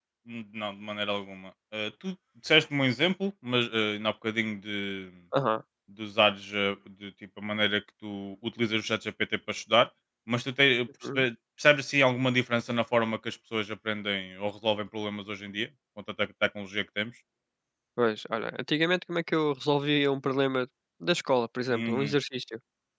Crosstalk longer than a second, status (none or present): none